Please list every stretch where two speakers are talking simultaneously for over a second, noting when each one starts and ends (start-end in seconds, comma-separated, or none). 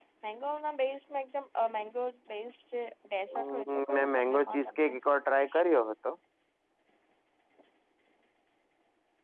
3.4-4.9